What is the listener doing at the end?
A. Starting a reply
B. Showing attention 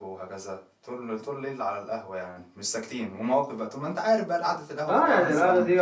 A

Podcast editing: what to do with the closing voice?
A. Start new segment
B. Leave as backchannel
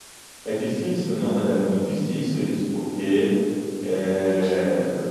B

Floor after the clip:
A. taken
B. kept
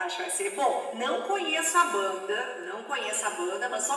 B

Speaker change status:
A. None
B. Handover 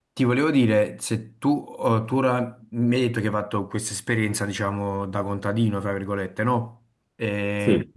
A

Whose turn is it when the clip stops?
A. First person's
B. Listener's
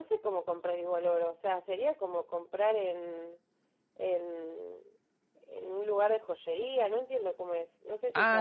B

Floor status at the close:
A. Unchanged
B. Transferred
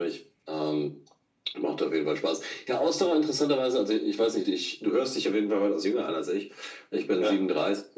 A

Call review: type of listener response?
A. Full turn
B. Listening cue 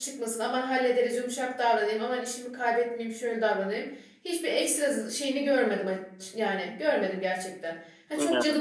B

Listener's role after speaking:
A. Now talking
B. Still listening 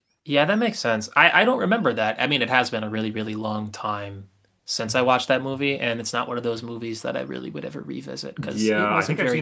A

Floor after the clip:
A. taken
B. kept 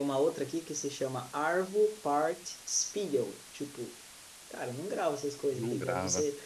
B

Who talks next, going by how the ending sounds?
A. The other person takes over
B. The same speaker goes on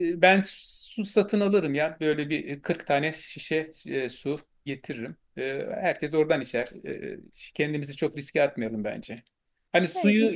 B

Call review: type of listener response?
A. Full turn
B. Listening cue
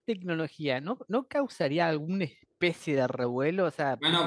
A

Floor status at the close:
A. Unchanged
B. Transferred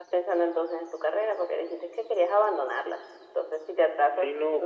B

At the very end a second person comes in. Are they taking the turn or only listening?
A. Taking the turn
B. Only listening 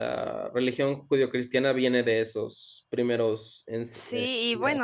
A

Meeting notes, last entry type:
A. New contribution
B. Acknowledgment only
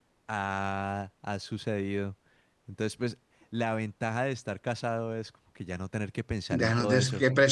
A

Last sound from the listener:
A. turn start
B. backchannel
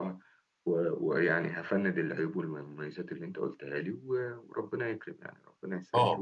A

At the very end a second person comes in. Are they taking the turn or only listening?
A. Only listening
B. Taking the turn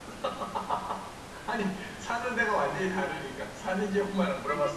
B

